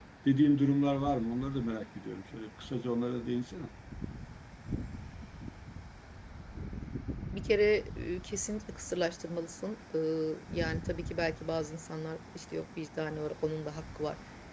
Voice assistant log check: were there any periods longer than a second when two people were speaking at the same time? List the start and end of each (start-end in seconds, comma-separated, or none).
none